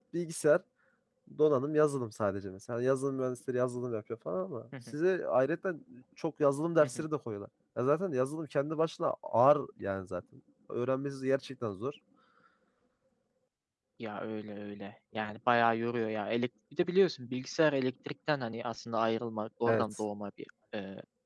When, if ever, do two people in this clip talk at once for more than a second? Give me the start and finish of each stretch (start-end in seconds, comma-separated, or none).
none